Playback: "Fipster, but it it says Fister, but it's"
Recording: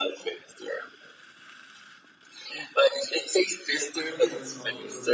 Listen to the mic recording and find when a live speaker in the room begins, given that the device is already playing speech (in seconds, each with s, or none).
3.9 s